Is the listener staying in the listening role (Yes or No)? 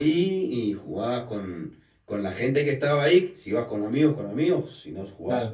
No